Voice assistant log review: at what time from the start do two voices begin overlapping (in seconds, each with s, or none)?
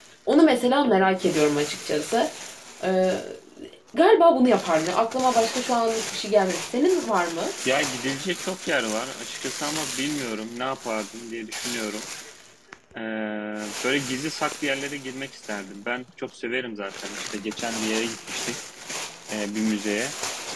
none